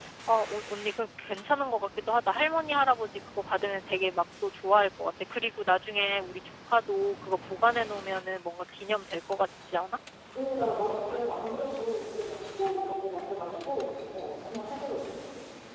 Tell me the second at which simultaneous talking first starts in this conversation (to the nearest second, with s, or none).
none